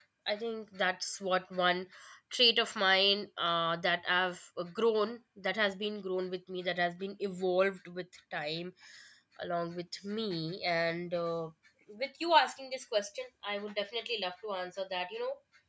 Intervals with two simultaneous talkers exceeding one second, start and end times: none

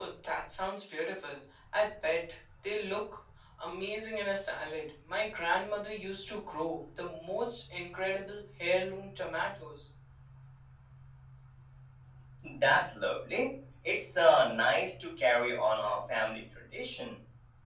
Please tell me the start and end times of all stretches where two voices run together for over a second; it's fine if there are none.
none

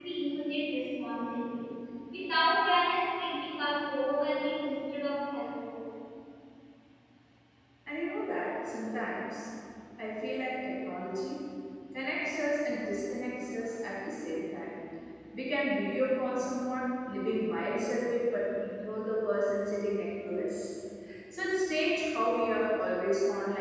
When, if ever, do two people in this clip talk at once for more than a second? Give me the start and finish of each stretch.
none

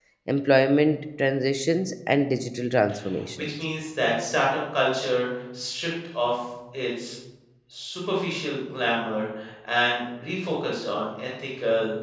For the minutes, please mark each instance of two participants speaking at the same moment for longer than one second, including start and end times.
none

